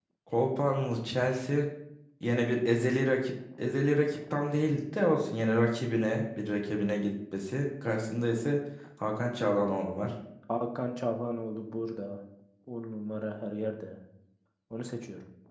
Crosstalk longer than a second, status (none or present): none